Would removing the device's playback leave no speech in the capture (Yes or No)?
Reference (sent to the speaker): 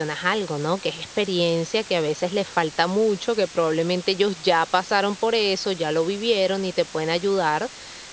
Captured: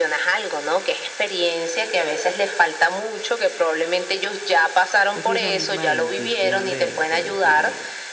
No